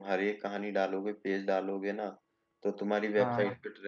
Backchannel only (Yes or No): Yes